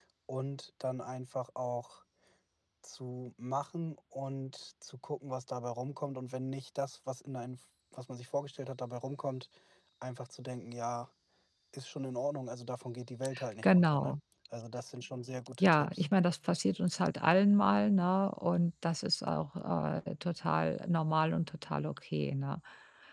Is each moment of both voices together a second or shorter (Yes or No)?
Yes